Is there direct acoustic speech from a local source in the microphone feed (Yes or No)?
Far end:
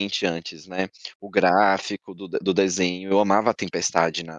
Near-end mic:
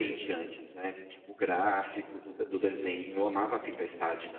No